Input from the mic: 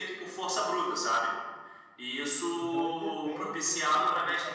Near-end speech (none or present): present